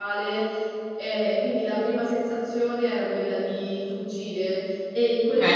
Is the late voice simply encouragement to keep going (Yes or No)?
No